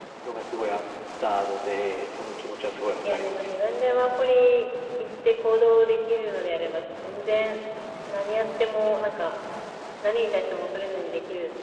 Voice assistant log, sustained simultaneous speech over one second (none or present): none